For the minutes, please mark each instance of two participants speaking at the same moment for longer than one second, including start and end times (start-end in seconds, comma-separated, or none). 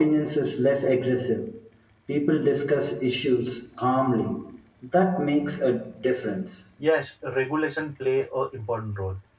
none